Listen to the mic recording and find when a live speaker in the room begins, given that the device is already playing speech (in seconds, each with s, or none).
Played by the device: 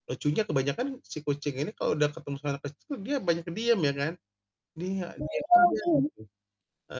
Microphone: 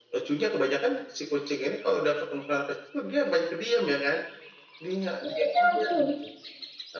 none